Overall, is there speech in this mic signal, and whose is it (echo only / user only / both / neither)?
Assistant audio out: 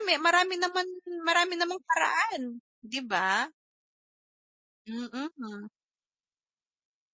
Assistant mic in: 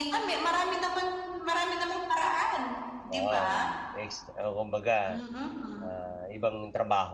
both